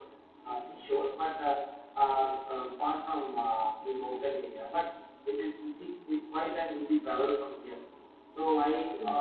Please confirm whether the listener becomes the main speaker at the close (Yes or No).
No